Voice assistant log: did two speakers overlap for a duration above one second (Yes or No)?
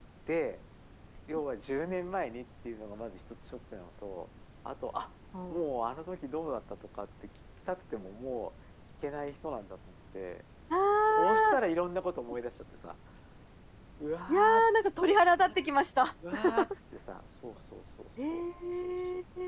No